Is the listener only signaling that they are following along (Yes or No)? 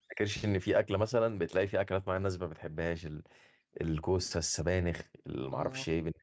Yes